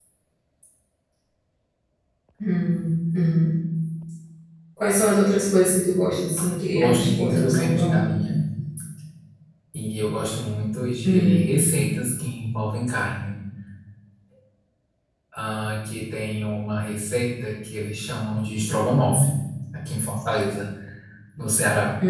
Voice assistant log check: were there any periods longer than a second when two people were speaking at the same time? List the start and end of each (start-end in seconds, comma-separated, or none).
6.7-8.0